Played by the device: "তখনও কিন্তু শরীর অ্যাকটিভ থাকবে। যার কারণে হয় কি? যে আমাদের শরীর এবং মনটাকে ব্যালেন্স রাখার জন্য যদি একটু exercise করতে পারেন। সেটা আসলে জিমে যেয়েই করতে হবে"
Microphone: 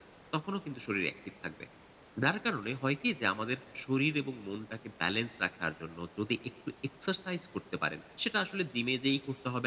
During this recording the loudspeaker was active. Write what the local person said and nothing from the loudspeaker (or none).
none